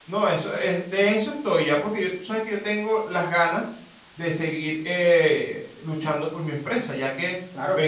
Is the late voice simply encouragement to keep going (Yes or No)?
Yes